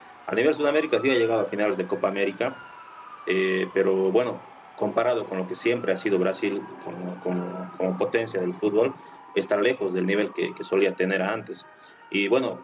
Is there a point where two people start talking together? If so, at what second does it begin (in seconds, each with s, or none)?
none